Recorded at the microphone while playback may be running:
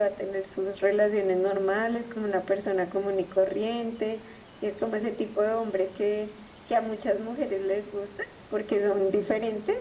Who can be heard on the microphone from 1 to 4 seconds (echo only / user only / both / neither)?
echo only